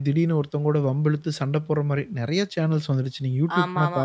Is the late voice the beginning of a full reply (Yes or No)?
Yes